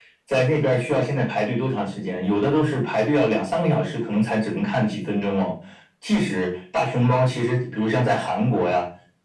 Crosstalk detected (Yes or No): No